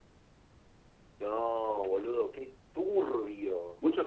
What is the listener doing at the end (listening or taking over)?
taking over